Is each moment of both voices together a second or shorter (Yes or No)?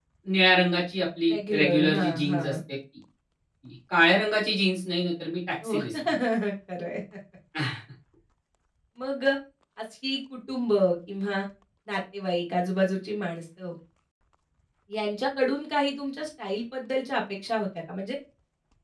No